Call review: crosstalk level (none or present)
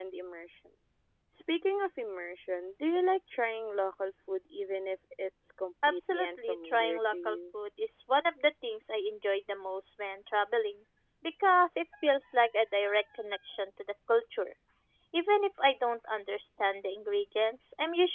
present